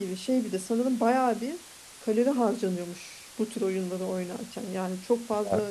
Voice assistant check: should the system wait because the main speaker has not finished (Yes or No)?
Yes